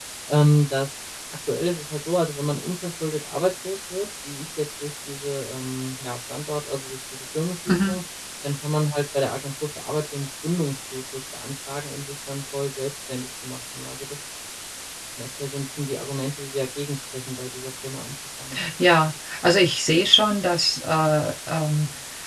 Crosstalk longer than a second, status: none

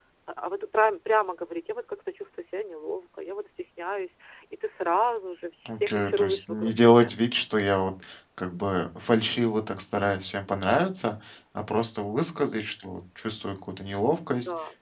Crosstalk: present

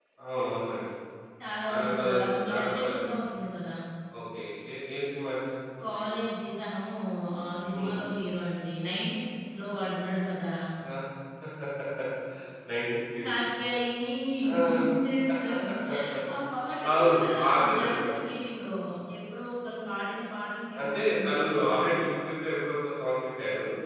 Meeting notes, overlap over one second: present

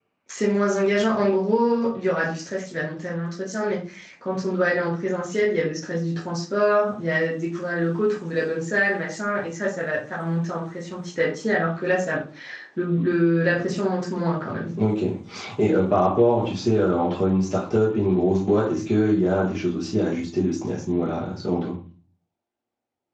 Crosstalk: none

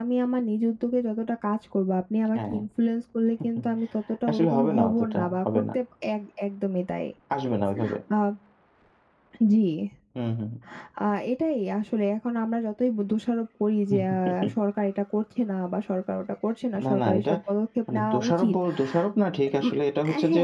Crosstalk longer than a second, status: present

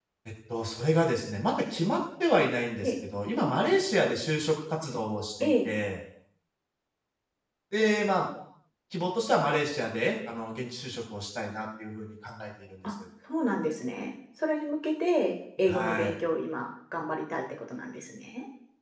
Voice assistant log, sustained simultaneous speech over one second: none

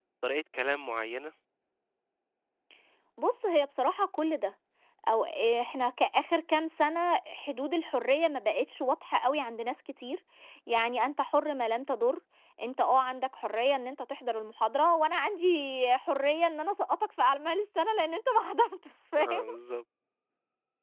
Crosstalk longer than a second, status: none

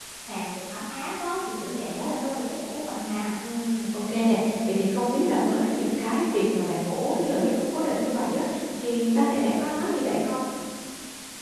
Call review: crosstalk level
none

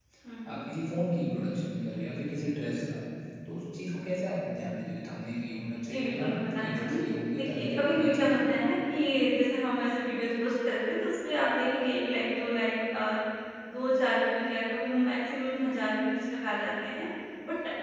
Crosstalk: present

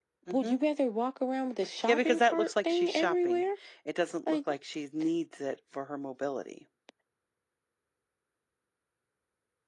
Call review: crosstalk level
present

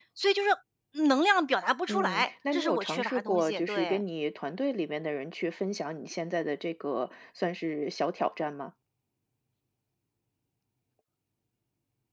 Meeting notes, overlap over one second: present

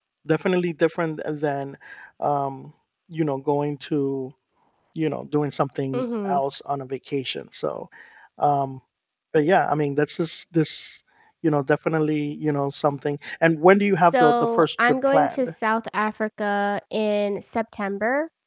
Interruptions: present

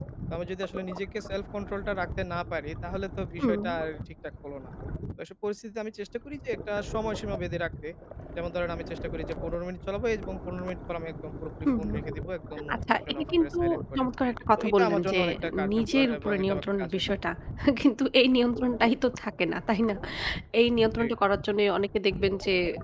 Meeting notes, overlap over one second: present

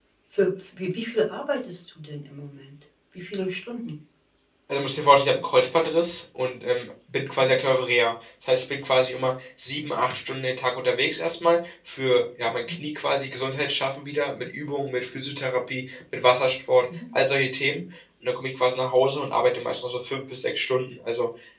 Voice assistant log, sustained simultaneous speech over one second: none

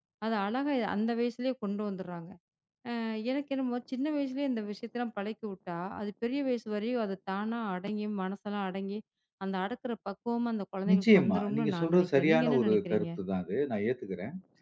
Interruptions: present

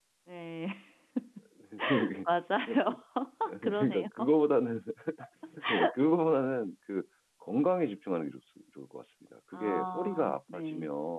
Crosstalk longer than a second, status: present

